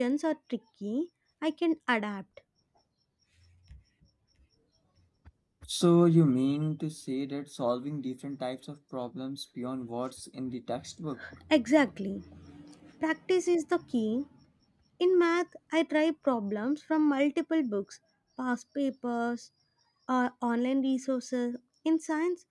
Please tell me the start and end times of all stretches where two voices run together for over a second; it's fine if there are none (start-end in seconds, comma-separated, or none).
none